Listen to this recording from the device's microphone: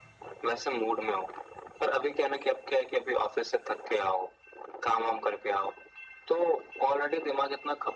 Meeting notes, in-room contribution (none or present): none